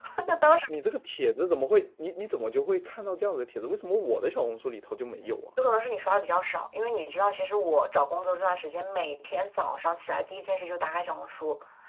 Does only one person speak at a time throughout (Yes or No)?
Yes